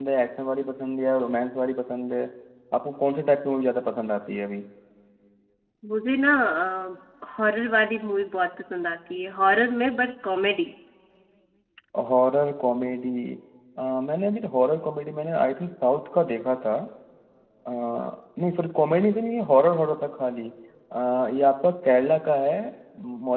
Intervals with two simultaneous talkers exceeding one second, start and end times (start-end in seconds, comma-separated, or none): none